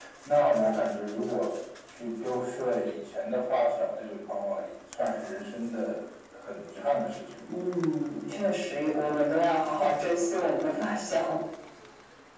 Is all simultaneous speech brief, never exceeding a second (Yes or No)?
Yes